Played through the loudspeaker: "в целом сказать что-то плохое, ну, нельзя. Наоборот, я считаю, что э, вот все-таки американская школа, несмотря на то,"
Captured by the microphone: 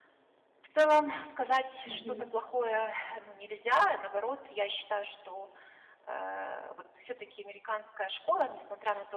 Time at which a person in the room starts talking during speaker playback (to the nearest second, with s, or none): 2 s